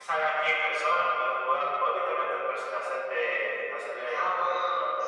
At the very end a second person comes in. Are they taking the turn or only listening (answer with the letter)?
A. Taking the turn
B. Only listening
A